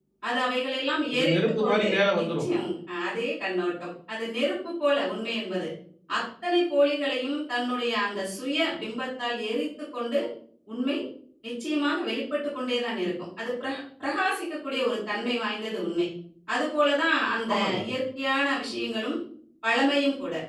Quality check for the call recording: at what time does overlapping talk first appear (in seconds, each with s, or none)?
1.1 s